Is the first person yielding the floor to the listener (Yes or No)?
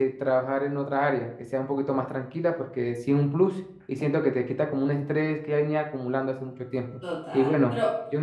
Yes